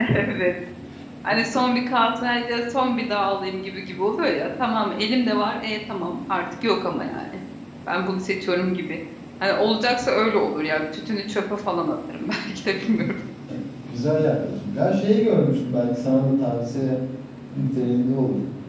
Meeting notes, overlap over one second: none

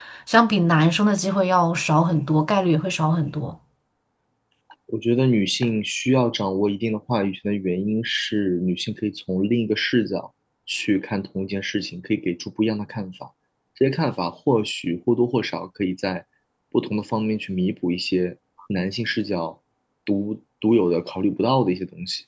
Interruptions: none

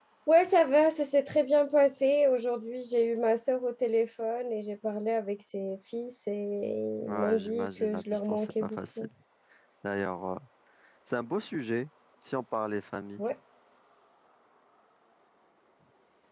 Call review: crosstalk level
present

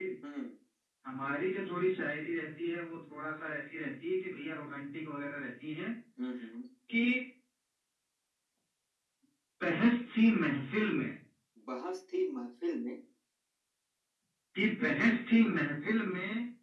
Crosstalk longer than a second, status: none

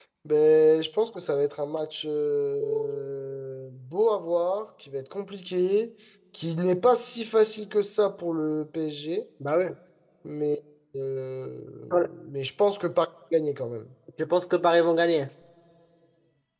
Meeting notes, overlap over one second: none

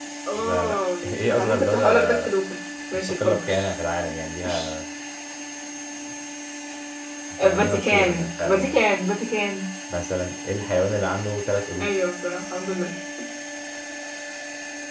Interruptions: present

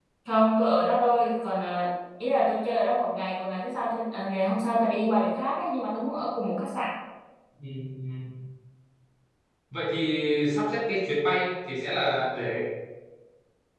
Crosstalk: none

